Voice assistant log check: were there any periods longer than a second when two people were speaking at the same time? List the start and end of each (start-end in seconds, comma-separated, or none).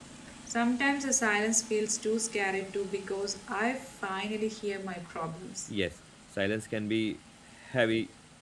none